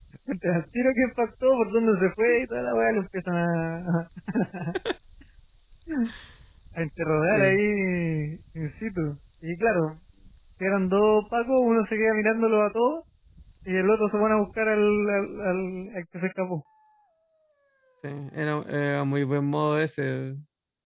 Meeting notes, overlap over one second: none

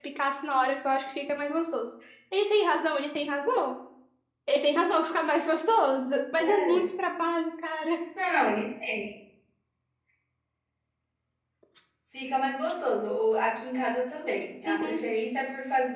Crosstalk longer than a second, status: none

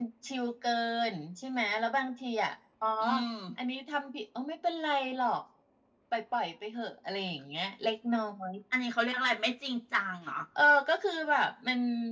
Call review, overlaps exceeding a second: none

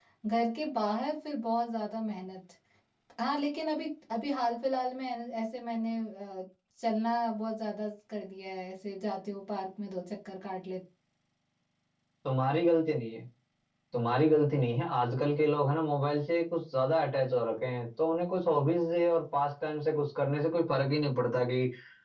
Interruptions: none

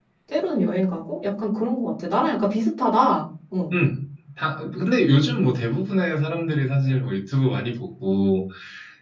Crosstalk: none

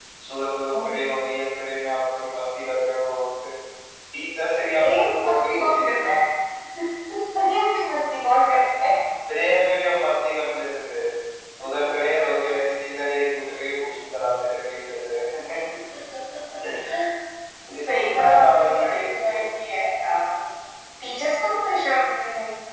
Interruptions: present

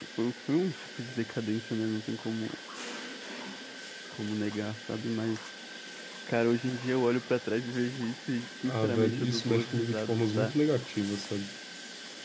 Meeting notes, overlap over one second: present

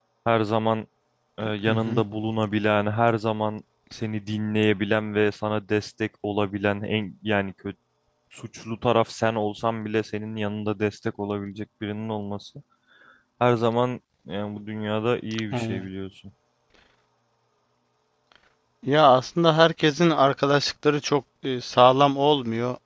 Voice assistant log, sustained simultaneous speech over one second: none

